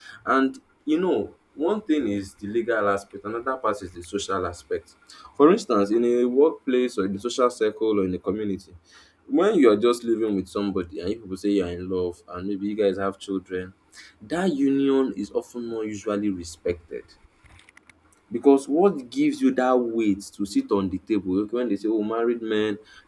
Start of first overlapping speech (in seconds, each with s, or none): none